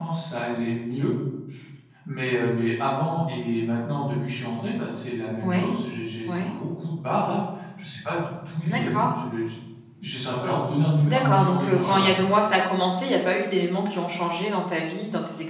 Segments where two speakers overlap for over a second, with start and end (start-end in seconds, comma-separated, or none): 11.1-12.3